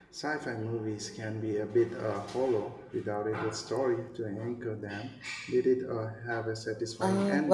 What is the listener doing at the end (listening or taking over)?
taking over